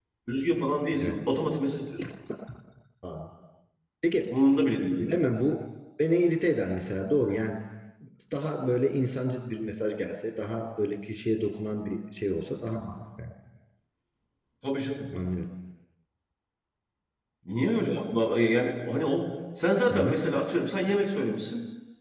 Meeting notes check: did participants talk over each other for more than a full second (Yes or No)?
No